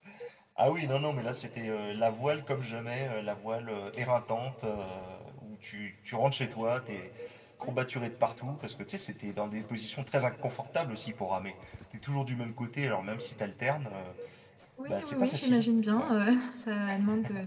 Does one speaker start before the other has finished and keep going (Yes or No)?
Yes